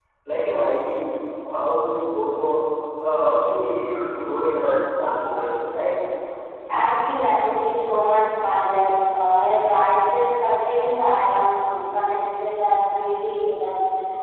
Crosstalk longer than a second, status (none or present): none